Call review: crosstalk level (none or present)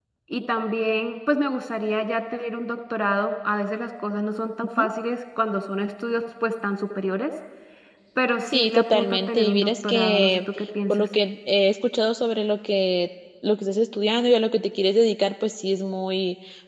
present